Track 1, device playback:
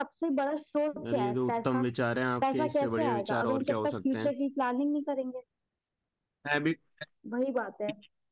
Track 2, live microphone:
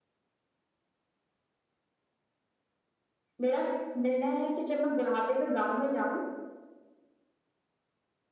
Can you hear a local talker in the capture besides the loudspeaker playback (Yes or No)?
Yes